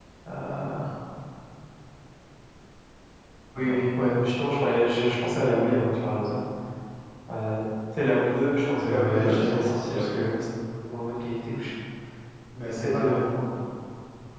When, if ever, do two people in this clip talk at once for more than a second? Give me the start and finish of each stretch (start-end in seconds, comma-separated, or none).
8.9-10.3